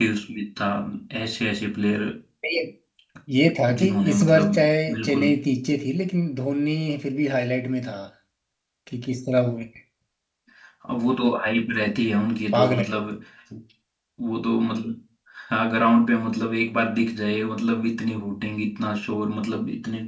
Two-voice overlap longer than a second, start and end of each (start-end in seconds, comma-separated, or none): 3.8-5.3